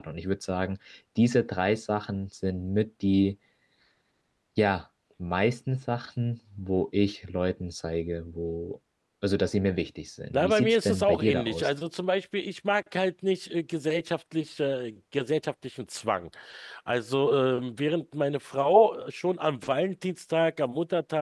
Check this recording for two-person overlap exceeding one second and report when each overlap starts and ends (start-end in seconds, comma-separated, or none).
10.3-11.7